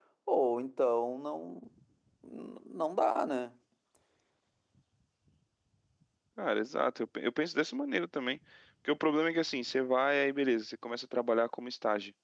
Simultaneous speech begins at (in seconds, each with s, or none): none